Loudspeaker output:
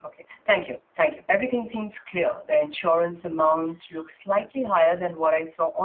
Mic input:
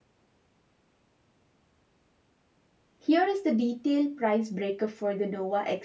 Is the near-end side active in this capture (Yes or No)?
Yes